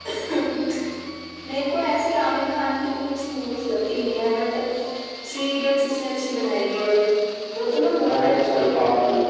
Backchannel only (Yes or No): No